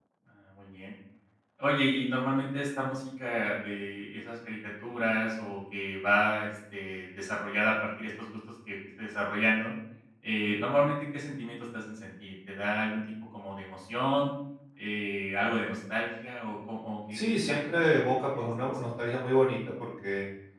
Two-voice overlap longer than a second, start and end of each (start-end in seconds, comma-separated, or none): 17.1-18.8